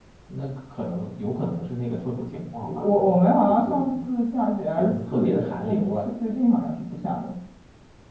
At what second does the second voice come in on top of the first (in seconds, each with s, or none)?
2.6 s